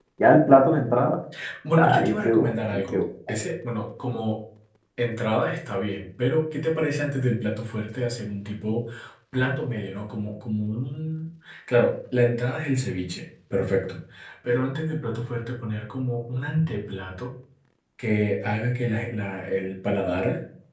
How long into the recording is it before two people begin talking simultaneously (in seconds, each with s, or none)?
1.8 s